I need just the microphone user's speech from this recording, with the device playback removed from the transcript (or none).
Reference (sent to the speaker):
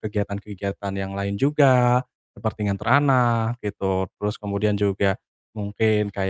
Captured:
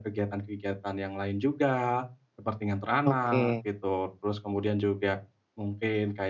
oke.